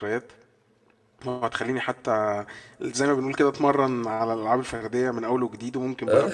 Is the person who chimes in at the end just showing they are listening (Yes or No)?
Yes